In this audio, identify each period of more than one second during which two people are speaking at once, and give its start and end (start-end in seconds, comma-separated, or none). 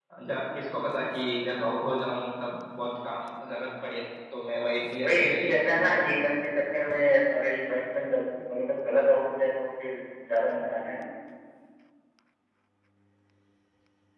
5.0-6.2